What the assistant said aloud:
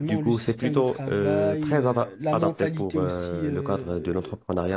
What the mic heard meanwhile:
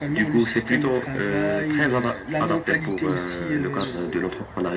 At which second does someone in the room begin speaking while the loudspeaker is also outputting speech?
none

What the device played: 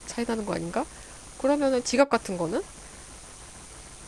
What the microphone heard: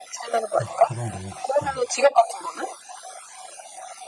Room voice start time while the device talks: 1 s

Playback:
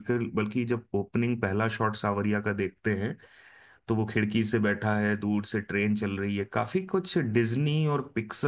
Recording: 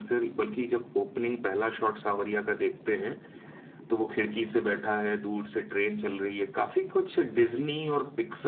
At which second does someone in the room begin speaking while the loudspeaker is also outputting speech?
none

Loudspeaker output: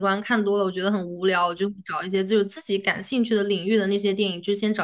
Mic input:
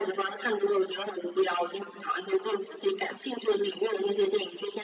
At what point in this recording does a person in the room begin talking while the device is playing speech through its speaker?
none

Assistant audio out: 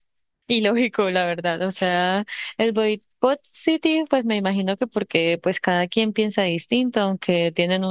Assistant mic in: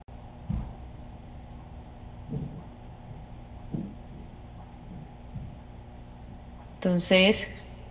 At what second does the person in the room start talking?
7 s

